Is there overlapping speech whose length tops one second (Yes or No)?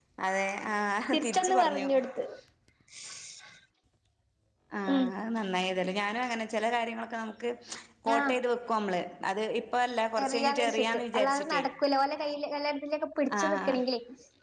Yes